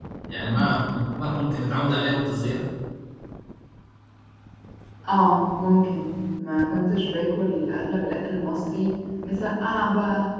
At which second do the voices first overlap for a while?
none

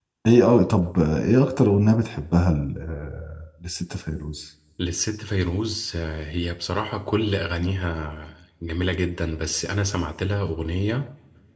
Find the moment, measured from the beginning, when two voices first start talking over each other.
none

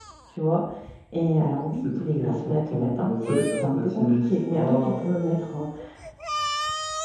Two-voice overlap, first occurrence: 1.7 s

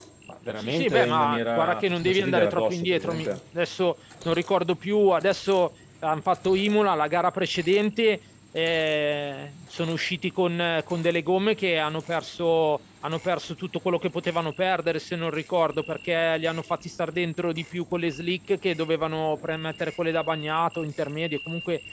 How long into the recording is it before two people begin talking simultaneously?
0.6 s

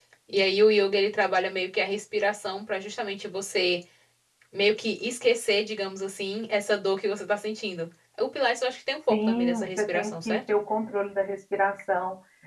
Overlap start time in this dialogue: 9.1 s

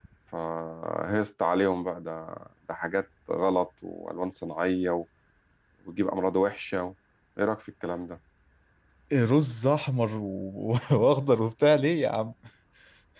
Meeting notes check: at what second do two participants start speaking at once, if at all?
none

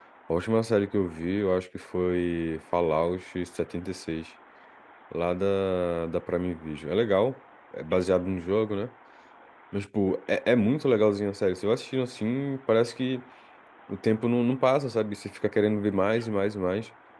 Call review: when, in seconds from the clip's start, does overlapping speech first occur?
none

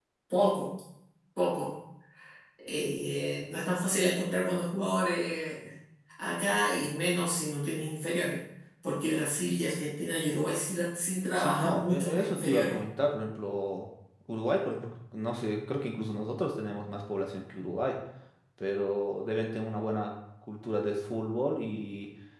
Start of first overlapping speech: 11.3 s

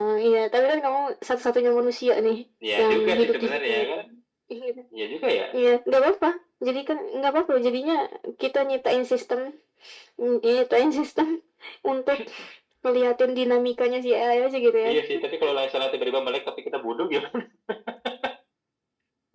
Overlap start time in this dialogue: 2.8 s

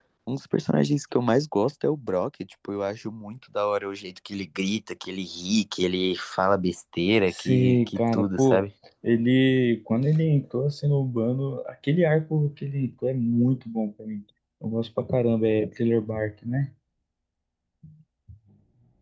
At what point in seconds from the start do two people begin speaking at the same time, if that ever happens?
7.3 s

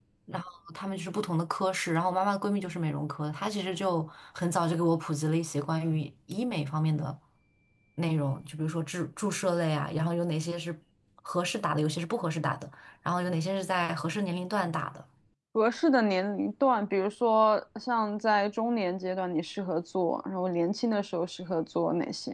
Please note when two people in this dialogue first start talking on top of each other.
none

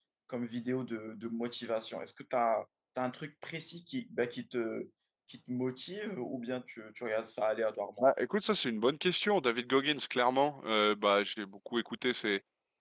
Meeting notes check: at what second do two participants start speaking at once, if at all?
none

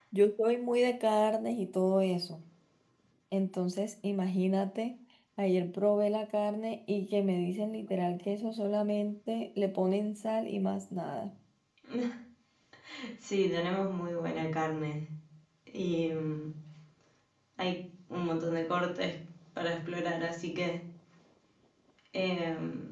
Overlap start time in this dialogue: none

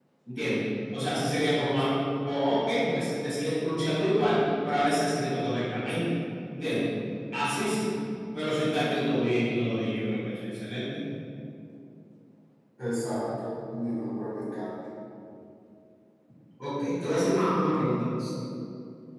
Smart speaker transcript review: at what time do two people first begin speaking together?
none

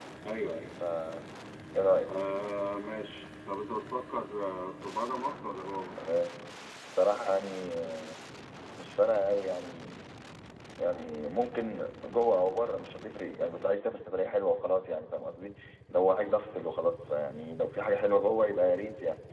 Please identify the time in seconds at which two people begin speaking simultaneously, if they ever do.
none

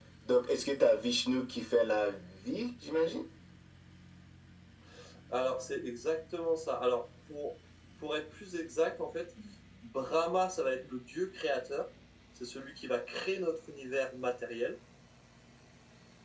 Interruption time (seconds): none

